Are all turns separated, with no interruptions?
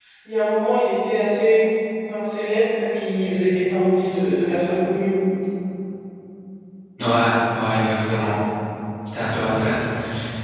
Yes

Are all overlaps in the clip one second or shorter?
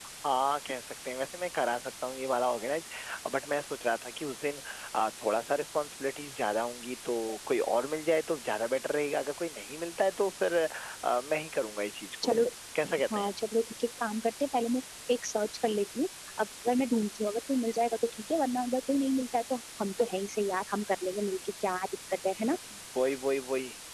Yes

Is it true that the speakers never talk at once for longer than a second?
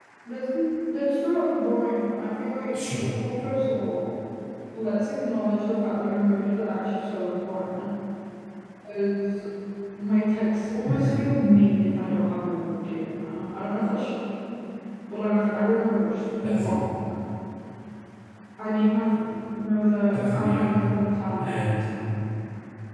Yes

